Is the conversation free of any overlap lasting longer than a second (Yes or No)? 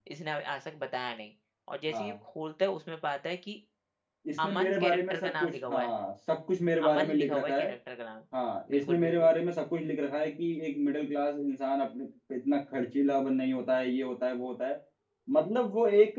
No